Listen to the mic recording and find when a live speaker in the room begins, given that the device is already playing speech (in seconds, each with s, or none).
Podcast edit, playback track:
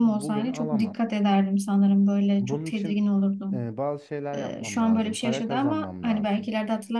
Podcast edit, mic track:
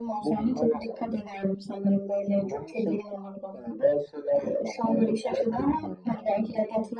none